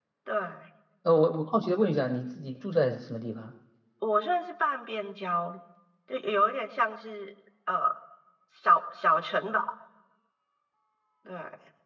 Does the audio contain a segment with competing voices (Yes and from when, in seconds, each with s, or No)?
No